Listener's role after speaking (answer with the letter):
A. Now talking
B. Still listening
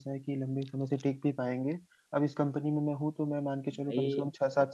B